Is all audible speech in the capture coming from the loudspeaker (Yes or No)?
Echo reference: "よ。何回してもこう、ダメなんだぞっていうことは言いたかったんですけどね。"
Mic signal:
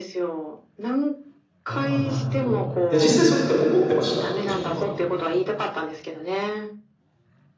No